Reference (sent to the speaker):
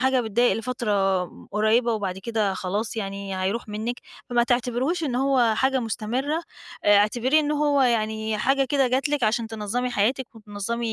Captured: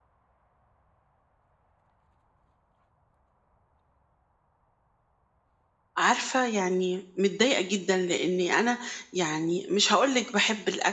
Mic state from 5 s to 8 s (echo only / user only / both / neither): user only